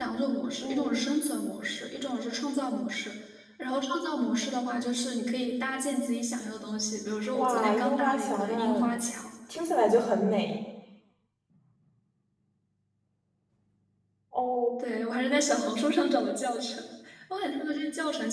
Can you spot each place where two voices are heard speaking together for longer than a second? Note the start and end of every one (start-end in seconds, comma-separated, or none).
7.3-8.8